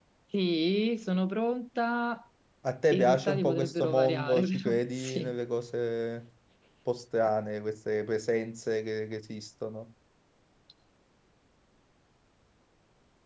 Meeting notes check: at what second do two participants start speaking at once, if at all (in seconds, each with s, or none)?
2.9 s